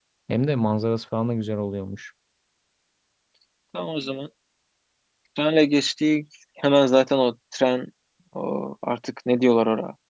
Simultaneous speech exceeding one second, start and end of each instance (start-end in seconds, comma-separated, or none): none